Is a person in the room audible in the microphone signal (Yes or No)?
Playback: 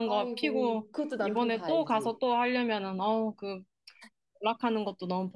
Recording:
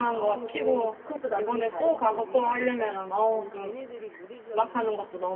Yes